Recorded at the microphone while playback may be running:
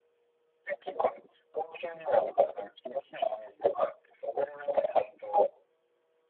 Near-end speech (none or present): none